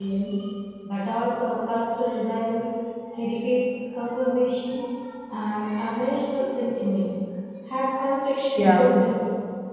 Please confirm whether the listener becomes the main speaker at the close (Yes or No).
No